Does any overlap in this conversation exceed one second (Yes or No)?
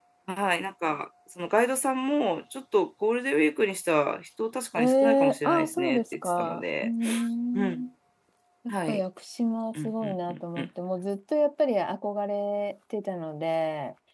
Yes